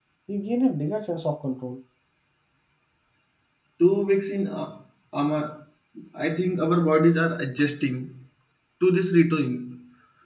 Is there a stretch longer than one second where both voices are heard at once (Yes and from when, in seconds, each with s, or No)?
No